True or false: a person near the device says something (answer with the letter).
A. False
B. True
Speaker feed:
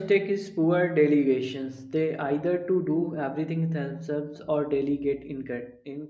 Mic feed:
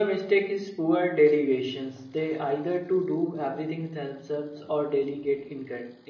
A